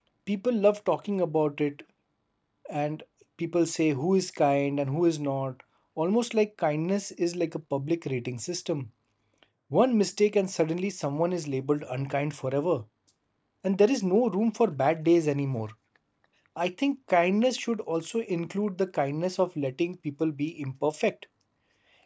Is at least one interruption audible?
No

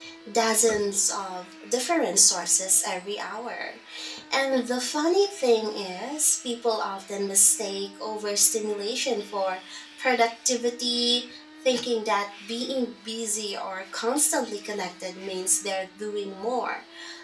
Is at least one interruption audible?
No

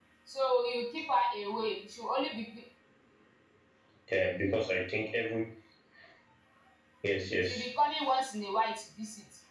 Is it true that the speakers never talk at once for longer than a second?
Yes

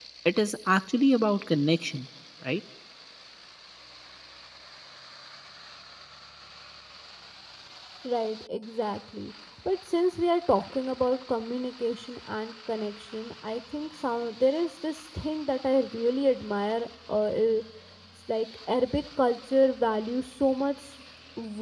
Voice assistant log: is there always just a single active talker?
Yes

